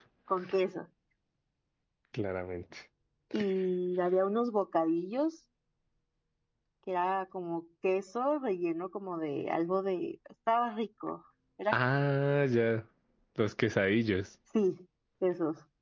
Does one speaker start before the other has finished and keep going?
No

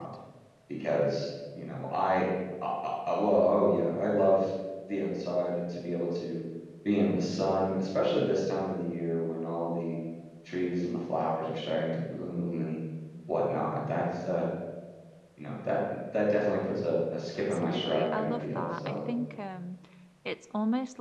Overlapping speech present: Yes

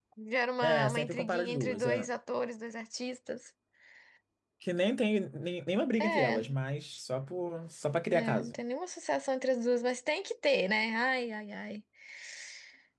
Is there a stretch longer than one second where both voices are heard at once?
Yes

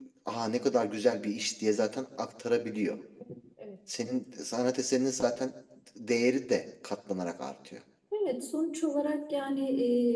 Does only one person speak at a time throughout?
Yes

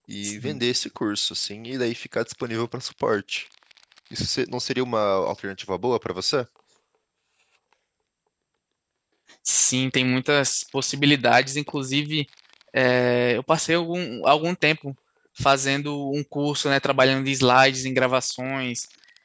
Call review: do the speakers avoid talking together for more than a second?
Yes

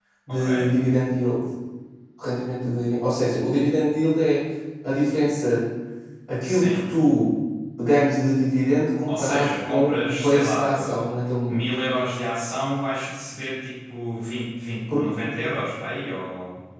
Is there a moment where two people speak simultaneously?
Yes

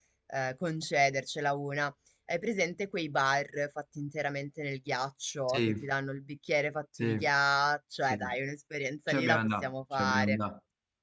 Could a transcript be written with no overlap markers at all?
No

